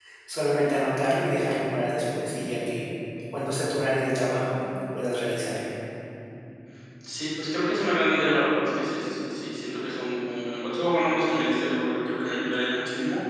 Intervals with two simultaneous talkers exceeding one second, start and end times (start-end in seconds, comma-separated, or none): none